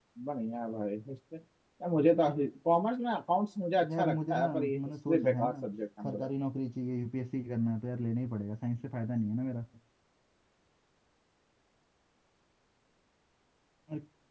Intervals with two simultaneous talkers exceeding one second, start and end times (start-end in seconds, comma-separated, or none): 4.0-5.5